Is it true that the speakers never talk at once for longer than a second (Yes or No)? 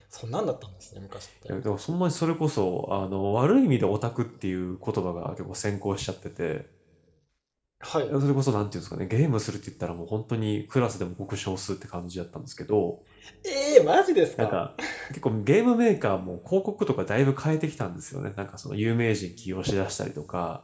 Yes